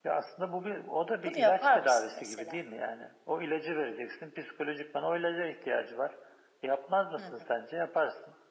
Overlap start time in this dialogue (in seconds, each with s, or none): 1.2 s